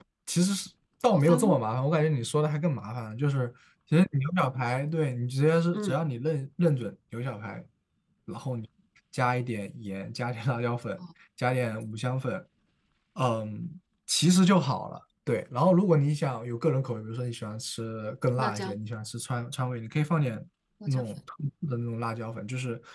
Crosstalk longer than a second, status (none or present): none